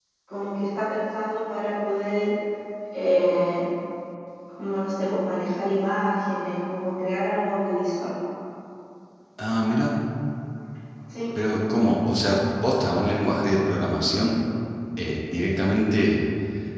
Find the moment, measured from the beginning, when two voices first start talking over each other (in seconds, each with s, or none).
none